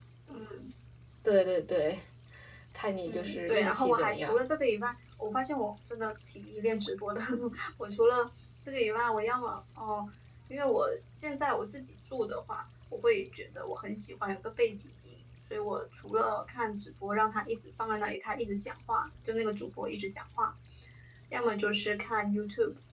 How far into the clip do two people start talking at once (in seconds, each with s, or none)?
3.1 s